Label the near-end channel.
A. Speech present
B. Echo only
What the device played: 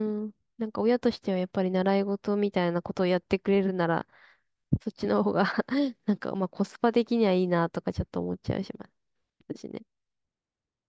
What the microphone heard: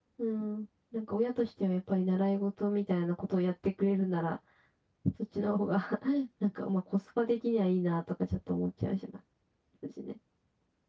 B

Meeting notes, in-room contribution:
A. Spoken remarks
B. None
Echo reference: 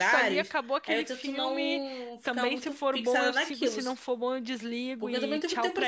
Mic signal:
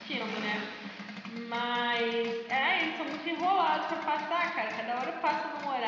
A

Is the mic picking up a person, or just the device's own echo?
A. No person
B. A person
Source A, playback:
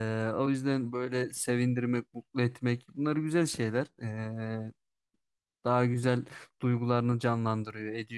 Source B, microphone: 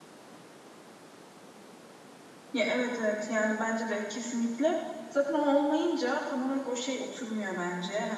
B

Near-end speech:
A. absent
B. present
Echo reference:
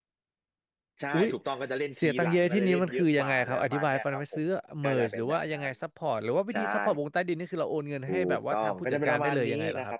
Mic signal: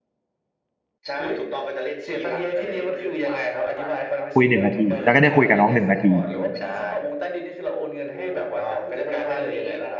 B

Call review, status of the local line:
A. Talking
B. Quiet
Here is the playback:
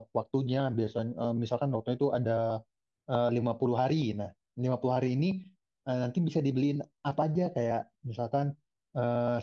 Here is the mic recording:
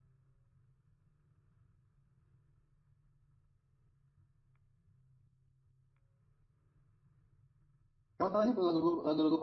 A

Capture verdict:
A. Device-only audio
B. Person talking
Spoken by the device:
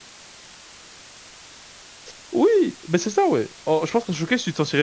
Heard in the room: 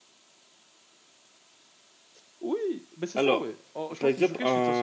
B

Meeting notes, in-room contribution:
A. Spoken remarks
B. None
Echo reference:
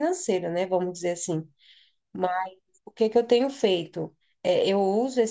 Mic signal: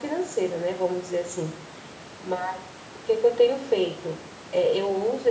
B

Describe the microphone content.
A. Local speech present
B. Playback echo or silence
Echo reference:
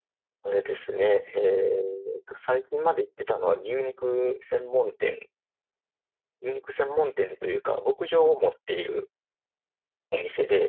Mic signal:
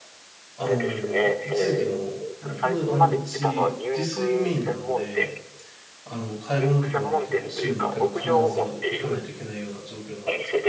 A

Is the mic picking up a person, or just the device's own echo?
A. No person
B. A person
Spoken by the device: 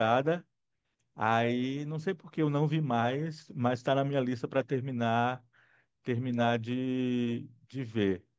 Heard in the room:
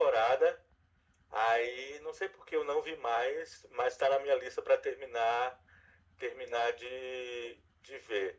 A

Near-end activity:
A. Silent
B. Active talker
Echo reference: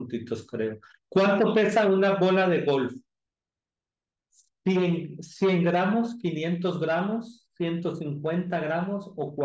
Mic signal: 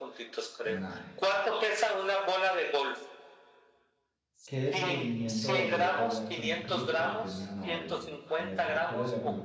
B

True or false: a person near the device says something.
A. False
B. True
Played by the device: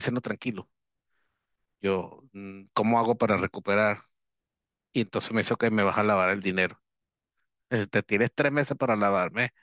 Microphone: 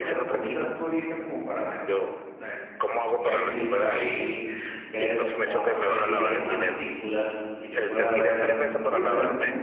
B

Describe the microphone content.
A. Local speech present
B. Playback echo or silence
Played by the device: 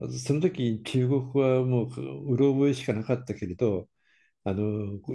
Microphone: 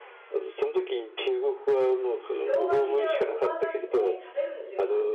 A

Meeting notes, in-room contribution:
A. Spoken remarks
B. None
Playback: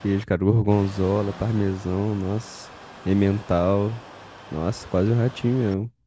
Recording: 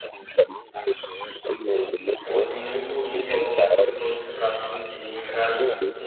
A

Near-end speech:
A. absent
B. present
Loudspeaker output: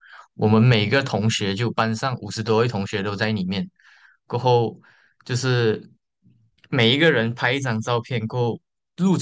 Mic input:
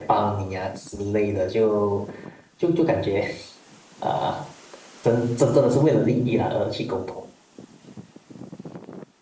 B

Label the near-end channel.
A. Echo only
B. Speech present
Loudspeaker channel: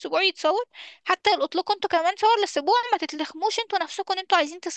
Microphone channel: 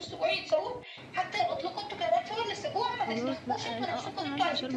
B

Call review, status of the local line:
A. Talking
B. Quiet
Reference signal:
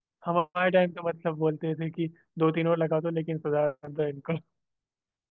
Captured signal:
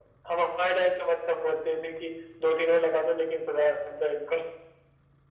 B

